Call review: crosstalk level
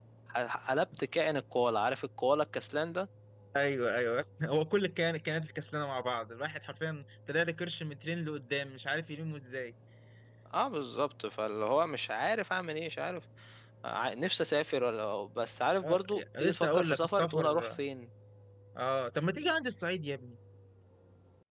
present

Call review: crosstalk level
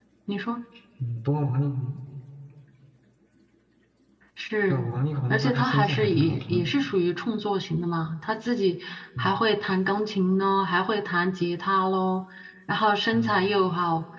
present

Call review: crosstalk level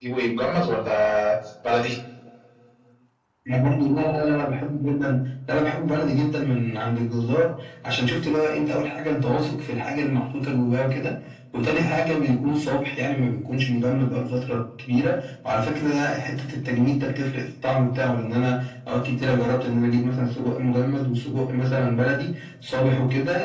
none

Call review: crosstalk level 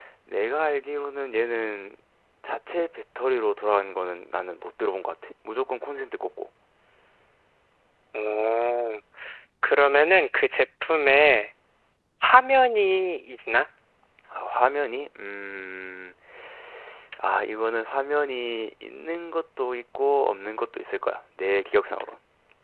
none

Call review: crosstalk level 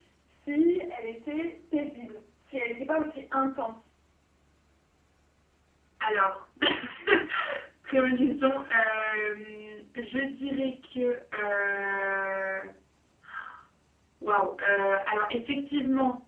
none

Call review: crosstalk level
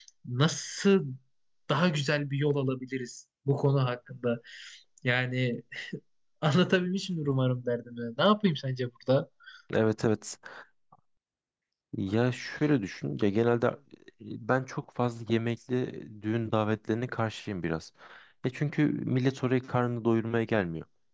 none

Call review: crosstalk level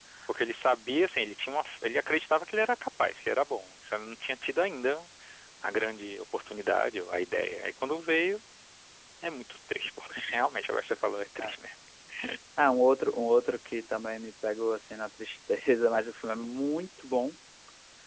none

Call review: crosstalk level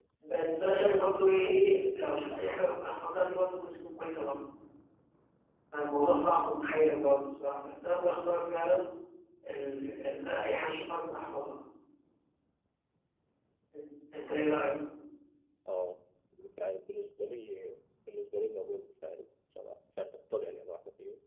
present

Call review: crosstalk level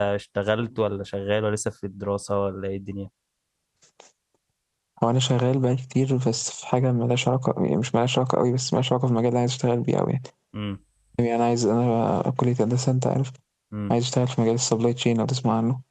none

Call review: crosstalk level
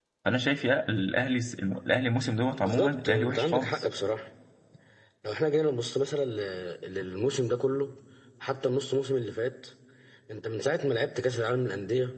present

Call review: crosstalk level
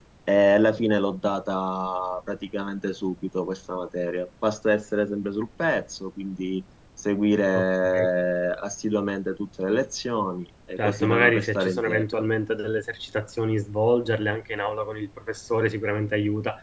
present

